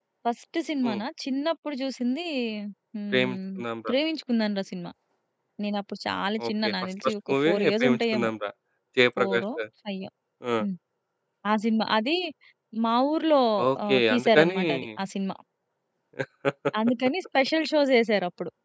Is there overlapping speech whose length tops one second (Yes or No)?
Yes